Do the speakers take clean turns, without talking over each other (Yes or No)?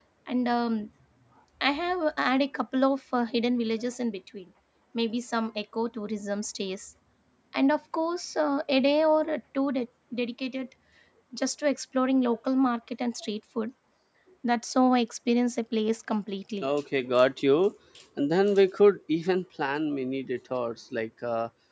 Yes